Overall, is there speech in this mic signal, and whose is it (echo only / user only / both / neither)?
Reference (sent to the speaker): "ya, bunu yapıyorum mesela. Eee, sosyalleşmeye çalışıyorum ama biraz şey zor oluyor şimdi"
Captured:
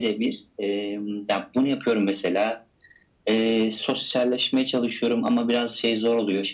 echo only